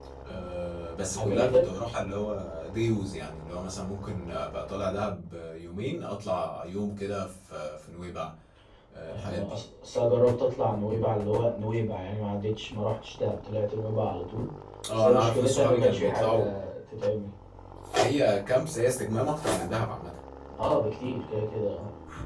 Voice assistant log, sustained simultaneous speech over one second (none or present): present